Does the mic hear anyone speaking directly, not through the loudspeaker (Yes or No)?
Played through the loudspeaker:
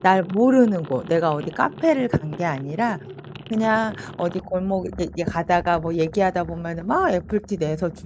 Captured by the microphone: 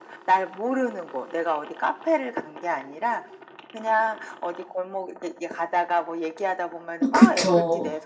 Yes